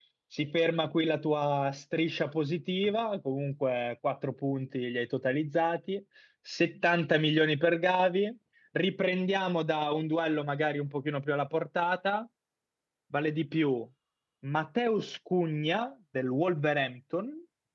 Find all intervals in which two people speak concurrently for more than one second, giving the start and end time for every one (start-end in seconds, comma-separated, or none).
none